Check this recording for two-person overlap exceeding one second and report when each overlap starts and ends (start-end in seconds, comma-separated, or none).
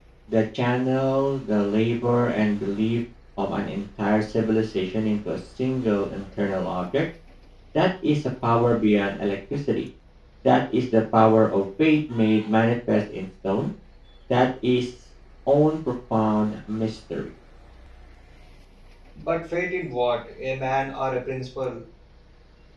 none